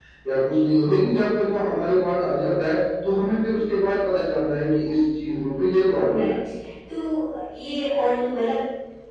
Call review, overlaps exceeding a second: none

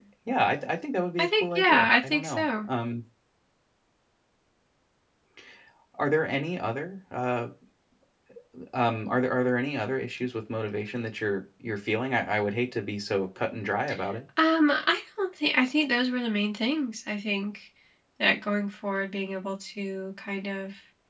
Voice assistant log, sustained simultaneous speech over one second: present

